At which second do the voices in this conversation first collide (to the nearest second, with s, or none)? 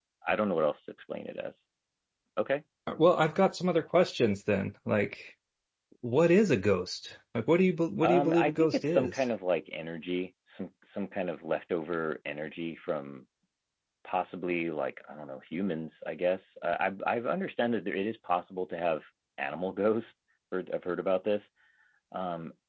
8 s